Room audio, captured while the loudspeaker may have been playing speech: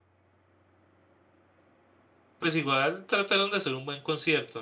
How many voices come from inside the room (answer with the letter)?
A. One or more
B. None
A